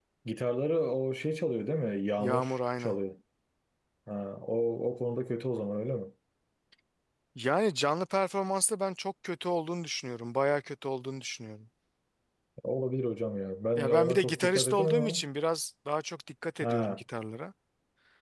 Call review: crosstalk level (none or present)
present